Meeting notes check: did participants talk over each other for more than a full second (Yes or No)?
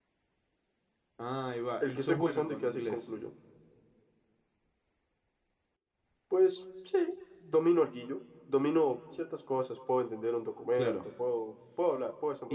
Yes